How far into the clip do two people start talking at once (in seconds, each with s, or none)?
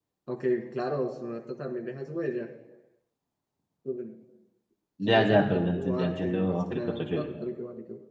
5.0 s